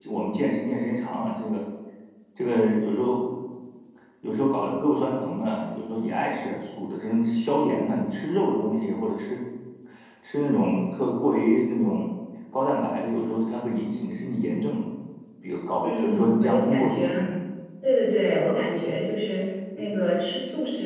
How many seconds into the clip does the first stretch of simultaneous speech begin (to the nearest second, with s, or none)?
16 s